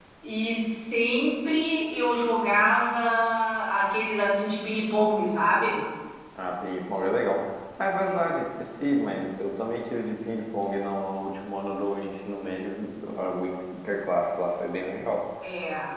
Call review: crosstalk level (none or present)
none